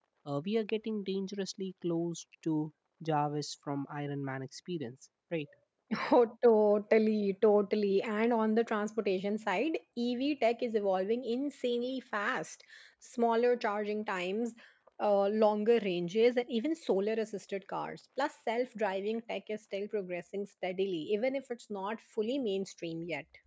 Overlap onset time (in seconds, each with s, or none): none